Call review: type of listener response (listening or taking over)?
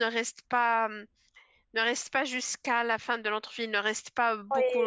taking over